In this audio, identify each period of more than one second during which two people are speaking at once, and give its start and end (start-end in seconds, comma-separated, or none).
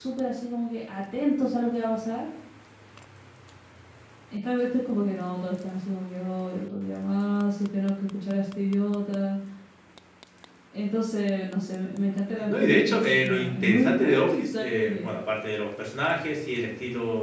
12.5-15.1